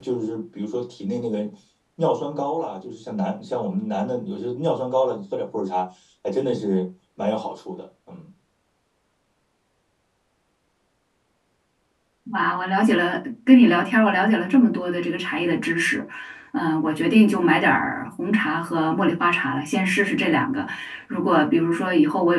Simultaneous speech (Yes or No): No